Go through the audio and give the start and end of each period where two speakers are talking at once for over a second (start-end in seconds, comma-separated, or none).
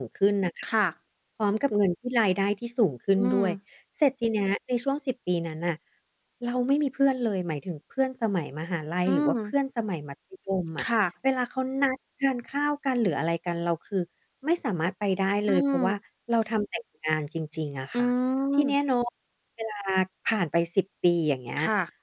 none